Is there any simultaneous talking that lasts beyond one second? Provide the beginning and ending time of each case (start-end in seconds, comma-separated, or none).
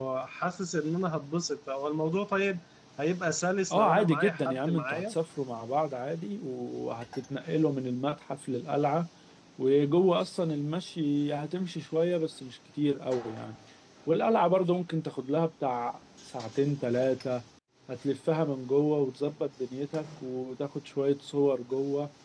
3.7-5.1